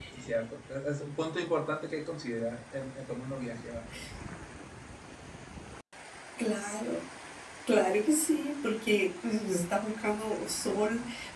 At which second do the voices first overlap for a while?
none

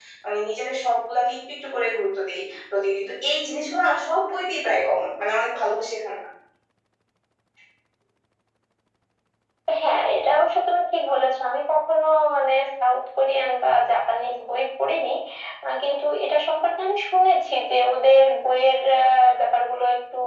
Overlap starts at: none

